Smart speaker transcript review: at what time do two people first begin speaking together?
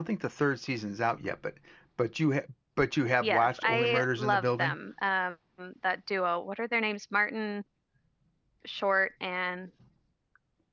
3.2 s

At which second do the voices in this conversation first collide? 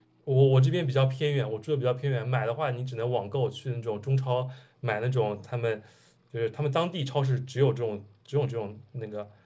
none

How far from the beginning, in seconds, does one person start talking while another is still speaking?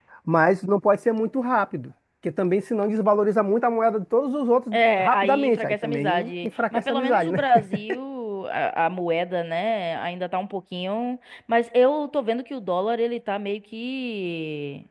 4.7 s

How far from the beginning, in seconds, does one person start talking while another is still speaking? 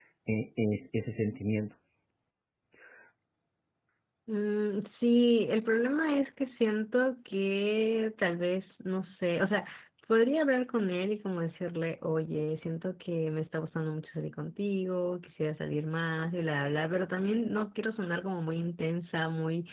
none

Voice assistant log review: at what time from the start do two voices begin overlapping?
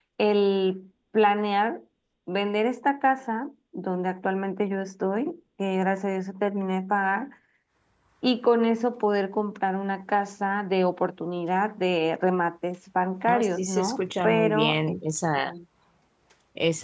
13.3 s

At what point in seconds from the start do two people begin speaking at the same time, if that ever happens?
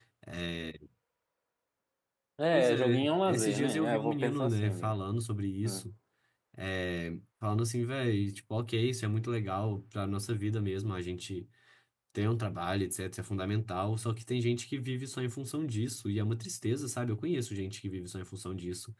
2.5 s

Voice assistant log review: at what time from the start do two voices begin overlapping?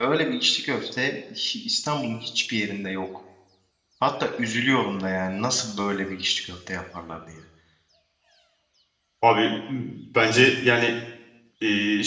none

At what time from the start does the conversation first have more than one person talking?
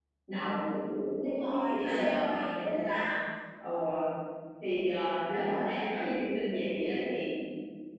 1.2 s

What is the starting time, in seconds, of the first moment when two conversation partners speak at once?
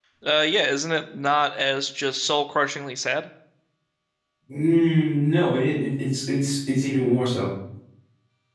none

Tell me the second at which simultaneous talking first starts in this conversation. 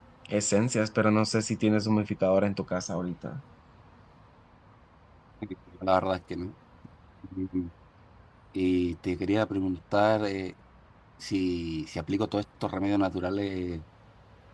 none

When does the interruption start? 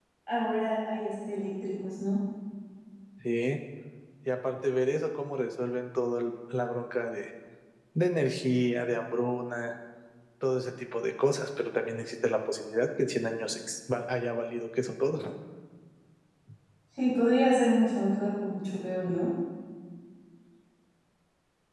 none

